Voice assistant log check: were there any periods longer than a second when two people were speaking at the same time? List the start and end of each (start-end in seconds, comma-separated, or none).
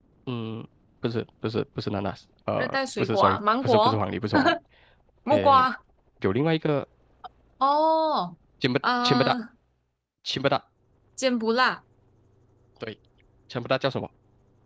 2.6-4.0